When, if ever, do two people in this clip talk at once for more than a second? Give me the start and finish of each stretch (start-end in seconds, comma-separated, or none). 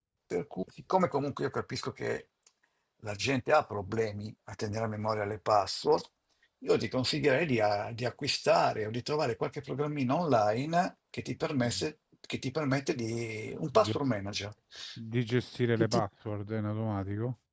none